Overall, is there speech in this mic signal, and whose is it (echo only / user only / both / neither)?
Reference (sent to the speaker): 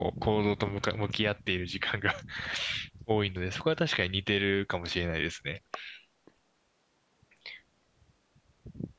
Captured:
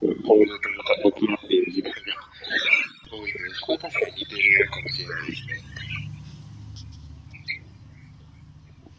echo only